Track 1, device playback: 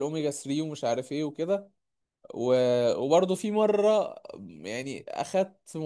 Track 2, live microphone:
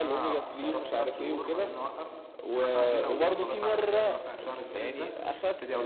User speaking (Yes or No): Yes